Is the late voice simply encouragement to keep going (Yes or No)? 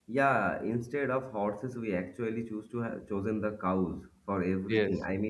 Yes